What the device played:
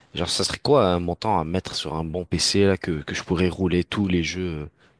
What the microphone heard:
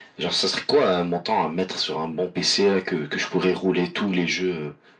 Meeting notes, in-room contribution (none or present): none